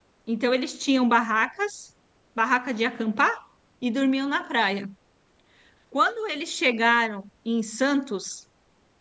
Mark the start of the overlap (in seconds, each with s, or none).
none